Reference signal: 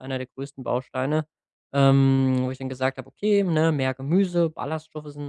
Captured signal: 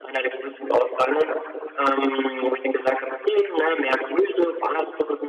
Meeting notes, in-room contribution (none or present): none